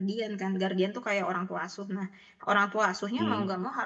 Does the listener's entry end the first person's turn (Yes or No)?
No